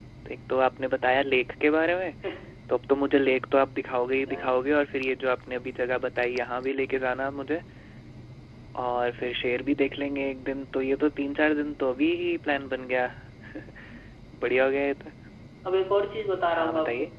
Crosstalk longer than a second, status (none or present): none